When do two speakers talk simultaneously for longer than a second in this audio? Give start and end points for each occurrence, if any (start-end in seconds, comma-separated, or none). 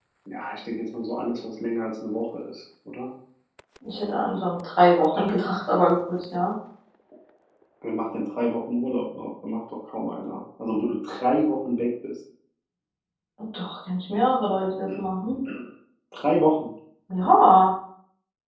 none